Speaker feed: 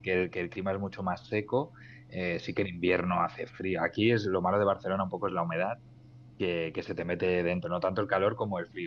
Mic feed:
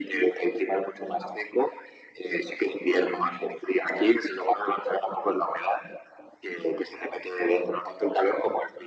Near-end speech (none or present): none